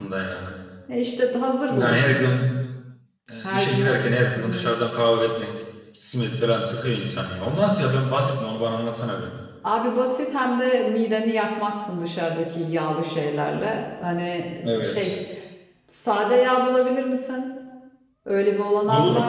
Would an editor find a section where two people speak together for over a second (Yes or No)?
No